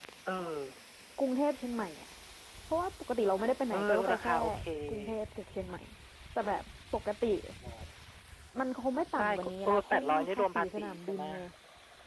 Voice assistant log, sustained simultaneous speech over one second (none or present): present